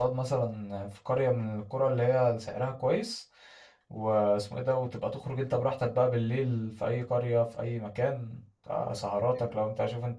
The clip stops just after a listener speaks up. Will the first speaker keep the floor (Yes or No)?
Yes